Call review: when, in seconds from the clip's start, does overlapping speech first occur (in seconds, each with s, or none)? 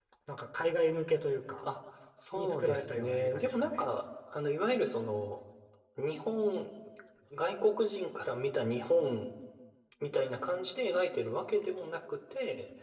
2.4 s